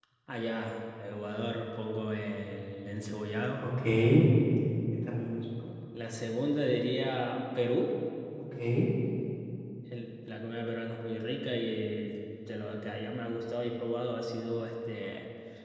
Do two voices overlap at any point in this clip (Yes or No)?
No